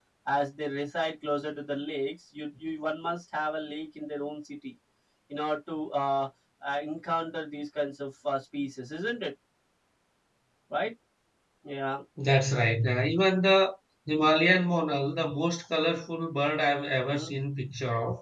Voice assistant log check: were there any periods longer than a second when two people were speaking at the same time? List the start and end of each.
none

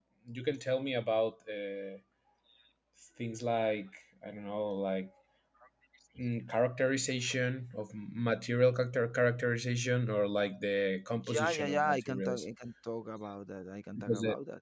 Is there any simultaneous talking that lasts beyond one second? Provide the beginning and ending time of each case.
11.2-12.4

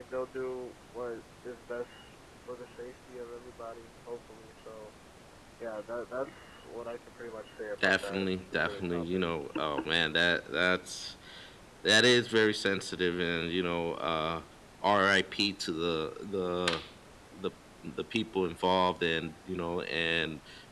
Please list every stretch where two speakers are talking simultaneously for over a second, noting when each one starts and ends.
7.8-9.2

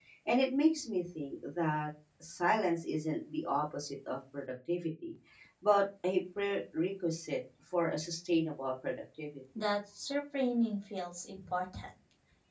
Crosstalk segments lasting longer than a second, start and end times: none

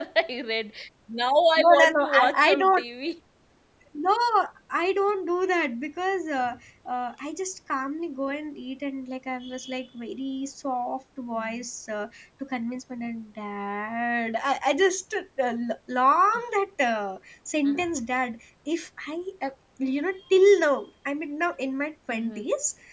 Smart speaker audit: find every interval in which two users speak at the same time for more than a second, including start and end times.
1.6-2.8

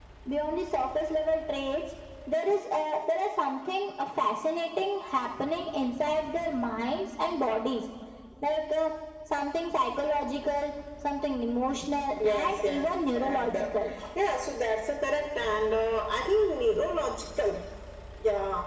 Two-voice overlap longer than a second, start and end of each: 12.2-13.7

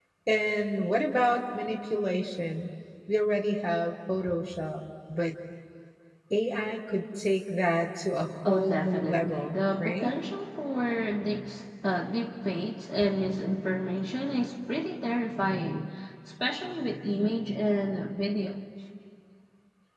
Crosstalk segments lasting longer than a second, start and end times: 8.4-10.1

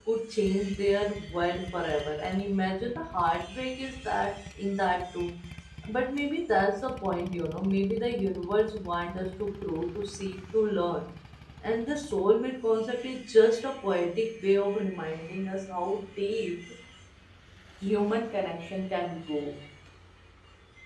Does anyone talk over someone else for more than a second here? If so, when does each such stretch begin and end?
none

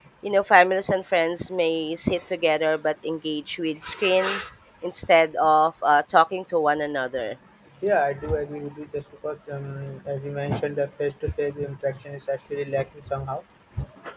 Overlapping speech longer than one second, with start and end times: none

